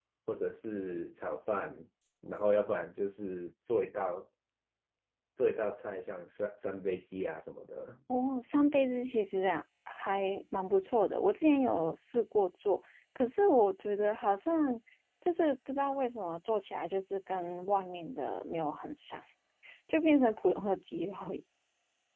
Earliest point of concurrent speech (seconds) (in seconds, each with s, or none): none